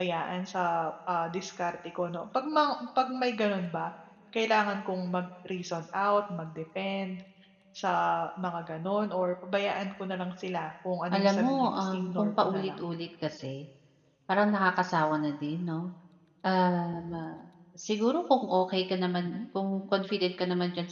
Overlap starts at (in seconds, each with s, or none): 11.1 s